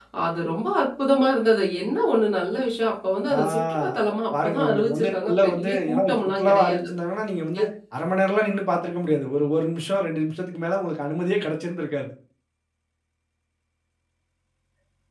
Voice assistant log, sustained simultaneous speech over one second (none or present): present